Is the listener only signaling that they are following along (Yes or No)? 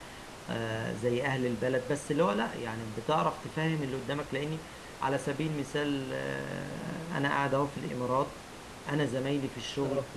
Yes